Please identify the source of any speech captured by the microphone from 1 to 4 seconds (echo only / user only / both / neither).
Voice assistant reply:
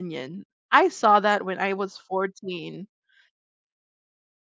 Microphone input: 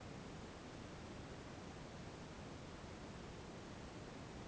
neither